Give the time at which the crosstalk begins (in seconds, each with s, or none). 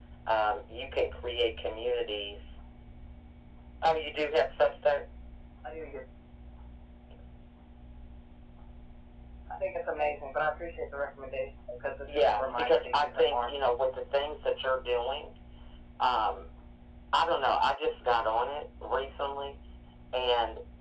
12.1 s